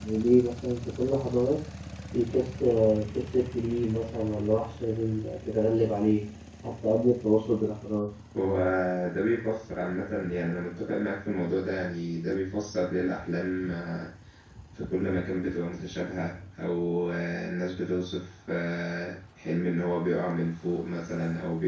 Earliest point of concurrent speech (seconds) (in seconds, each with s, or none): none